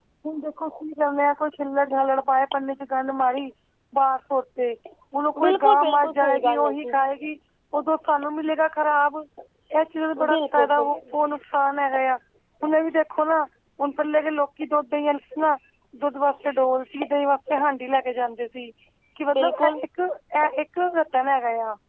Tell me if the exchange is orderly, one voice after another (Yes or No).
No